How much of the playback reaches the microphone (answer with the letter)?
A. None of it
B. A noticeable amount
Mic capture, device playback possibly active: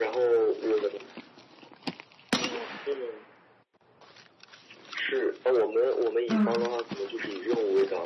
B